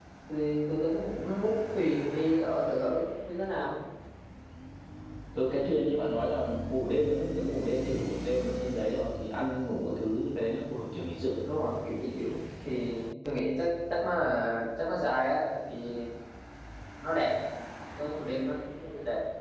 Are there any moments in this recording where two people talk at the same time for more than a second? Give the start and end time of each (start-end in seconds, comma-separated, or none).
none